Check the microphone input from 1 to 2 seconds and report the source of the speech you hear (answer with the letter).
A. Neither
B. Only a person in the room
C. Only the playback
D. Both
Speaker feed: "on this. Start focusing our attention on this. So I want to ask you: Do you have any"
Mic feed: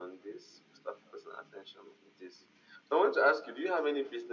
C